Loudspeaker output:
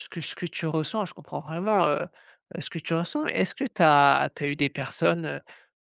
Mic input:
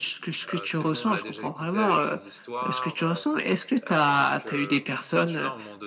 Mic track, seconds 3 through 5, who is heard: both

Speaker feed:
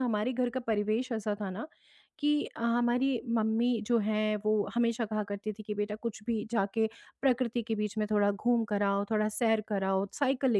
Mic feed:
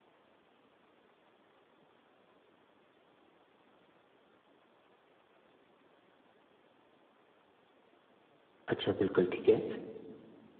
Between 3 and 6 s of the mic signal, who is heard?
neither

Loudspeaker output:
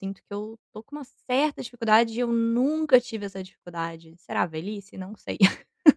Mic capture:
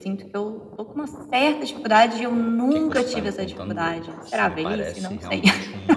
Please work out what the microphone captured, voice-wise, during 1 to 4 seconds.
both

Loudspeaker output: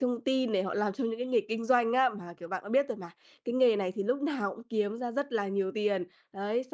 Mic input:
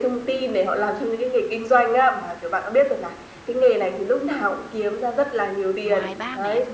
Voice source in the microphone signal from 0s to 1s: echo only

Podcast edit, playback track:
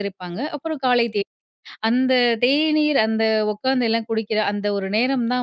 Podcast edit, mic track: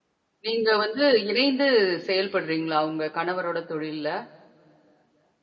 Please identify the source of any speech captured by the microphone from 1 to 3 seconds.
user only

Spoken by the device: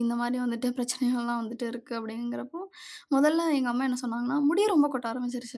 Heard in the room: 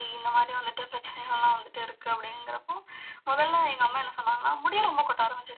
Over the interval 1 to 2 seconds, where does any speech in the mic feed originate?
echo only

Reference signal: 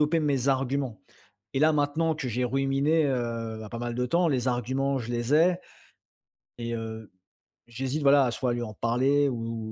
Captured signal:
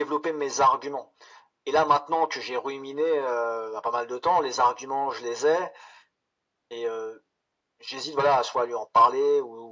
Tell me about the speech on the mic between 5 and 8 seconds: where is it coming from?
echo only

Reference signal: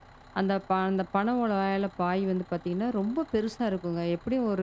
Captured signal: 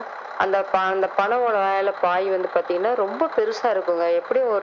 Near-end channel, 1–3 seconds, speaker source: echo only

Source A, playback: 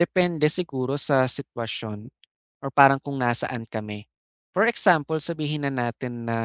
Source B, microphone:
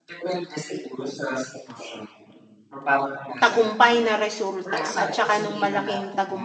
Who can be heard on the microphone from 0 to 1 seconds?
echo only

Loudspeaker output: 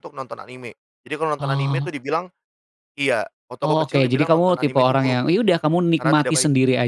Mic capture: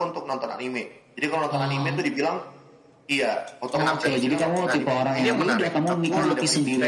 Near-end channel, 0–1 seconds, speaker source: echo only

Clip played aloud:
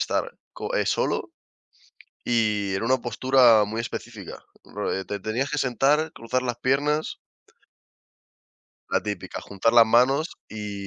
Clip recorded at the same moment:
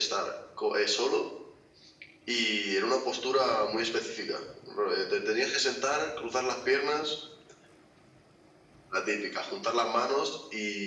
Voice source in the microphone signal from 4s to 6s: echo only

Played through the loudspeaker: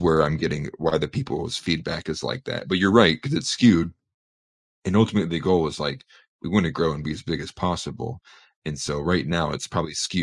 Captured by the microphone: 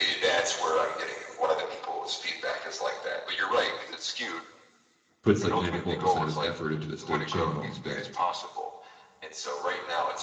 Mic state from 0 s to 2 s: echo only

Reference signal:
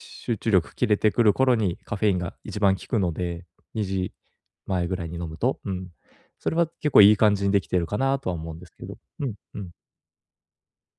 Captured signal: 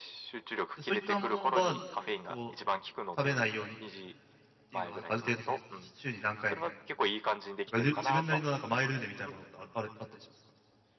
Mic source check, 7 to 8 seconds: both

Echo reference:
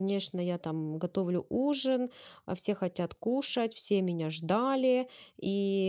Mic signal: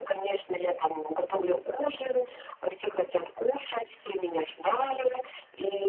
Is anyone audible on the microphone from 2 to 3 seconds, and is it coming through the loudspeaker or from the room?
echo only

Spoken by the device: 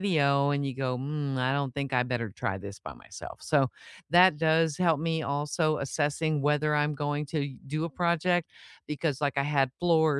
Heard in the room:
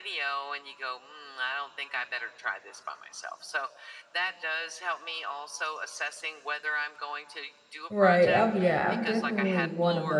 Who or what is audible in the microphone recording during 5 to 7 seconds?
echo only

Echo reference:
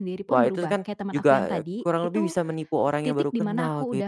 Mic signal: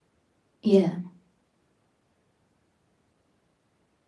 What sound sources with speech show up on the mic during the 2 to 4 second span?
neither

